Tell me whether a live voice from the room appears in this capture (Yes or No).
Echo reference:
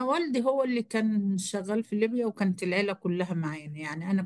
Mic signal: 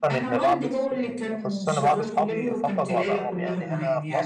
Yes